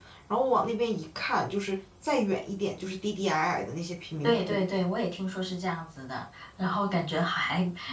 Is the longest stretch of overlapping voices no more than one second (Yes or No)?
Yes